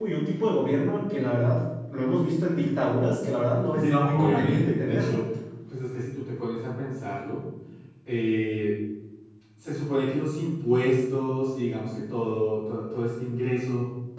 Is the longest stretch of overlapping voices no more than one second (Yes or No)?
No